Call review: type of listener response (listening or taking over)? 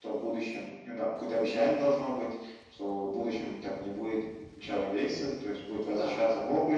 listening